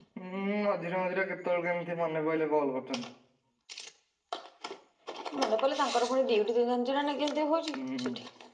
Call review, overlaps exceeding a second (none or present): none